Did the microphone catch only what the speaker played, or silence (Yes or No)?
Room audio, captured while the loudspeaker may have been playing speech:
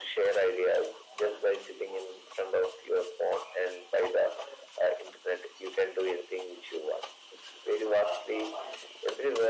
Yes